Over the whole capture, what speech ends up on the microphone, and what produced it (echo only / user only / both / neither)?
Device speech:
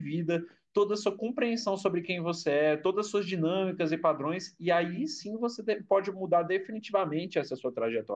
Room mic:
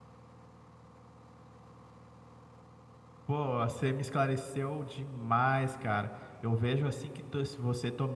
user only